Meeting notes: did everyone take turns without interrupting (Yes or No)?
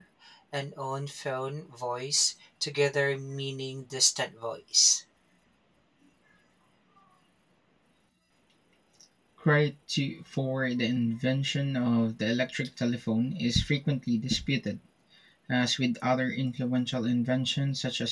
Yes